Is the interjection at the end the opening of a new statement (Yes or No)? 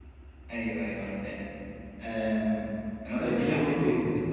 No